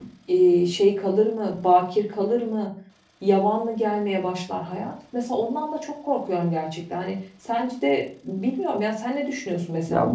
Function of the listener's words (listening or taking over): taking over